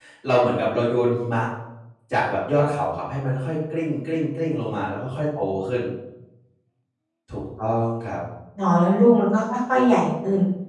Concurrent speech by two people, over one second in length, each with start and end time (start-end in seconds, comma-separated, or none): none